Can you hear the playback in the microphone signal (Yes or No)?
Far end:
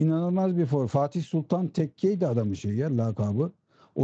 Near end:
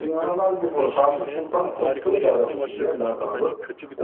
Yes